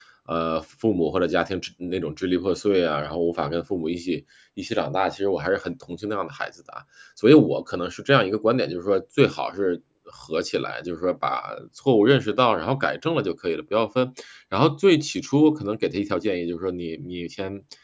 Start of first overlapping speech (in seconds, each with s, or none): none